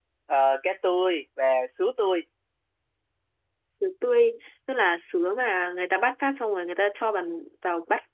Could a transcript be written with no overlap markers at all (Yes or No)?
Yes